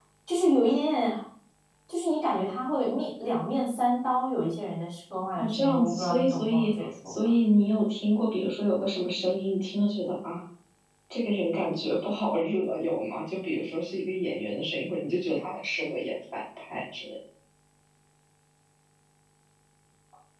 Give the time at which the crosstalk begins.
5.4 s

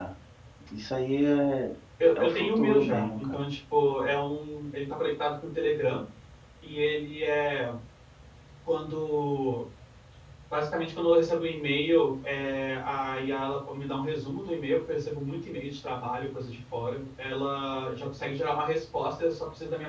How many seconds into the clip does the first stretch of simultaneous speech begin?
2.2 s

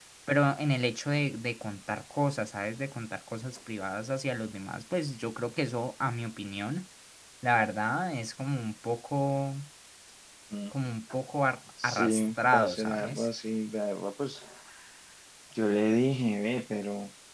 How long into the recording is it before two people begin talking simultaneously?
11.8 s

